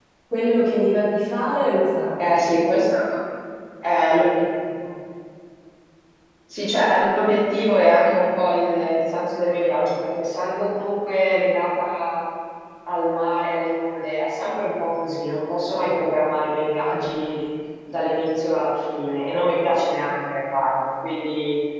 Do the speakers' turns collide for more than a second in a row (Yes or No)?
No